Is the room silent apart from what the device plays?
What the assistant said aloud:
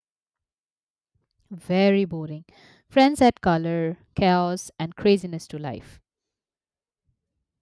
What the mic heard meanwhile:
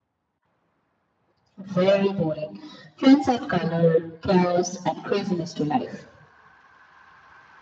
Yes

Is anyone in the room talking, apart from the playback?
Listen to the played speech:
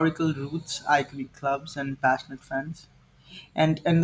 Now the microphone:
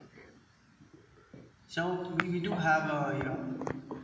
Yes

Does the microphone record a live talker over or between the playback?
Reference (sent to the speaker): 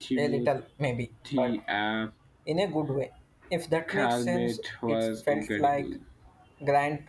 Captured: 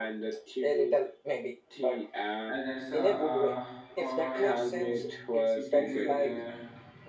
Yes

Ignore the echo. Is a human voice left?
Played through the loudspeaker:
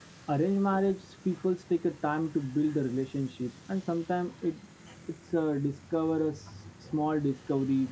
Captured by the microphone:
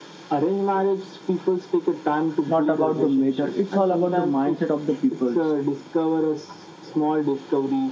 Yes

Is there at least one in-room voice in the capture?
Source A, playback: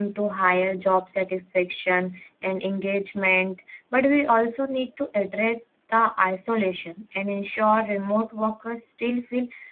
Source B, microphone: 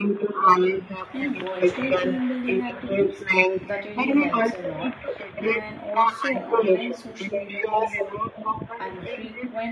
Yes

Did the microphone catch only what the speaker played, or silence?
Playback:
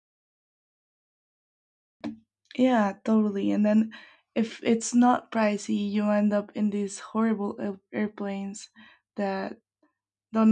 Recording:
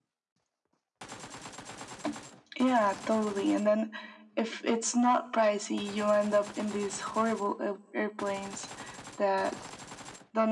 Yes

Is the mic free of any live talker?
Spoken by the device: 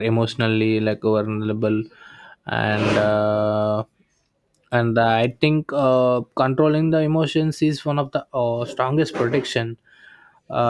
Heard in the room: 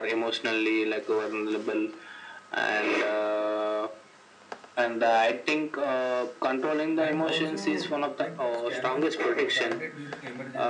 No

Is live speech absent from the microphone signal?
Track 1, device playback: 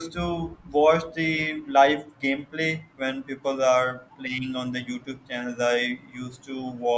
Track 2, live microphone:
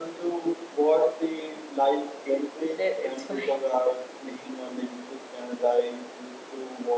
No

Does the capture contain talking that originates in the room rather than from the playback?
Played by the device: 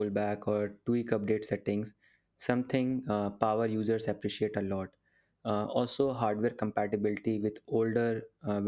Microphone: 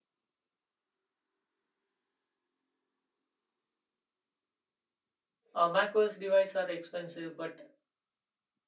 Yes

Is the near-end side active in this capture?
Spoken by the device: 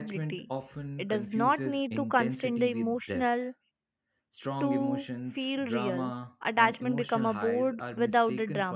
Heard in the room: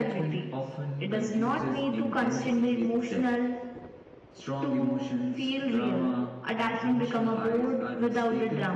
No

